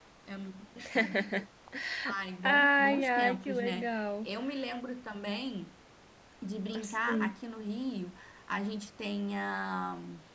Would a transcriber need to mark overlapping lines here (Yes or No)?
Yes